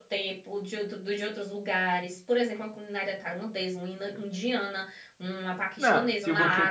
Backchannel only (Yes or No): No